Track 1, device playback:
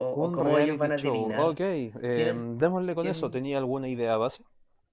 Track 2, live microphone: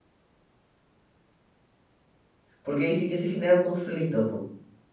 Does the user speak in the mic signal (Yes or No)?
Yes